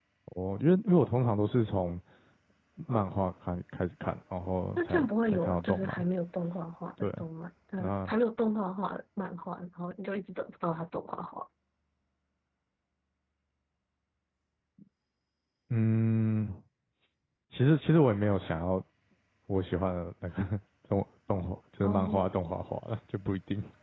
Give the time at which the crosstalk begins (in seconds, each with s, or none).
4.8 s